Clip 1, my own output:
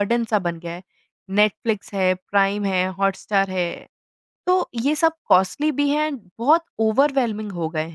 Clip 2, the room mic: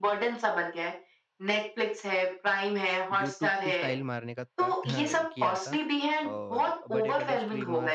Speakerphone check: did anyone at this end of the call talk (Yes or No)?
Yes